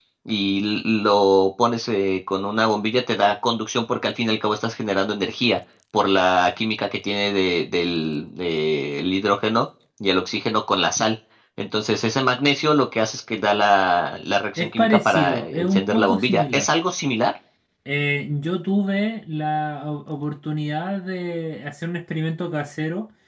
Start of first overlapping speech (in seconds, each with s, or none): 14.6 s